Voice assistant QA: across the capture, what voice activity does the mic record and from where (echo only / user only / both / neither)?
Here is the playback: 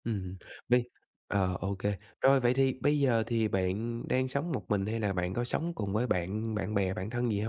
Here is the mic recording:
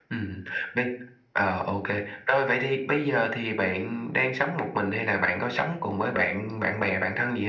echo only